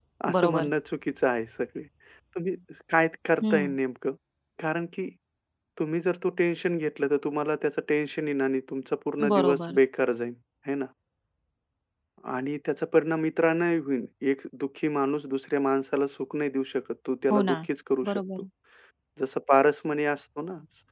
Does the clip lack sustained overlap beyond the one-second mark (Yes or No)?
Yes